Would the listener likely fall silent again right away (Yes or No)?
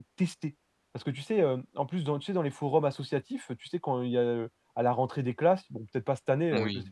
Yes